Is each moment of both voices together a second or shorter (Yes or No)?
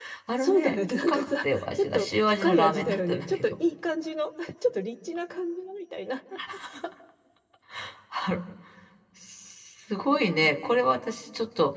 No